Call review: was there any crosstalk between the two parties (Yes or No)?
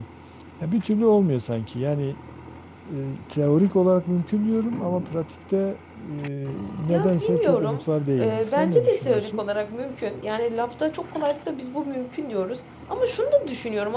Yes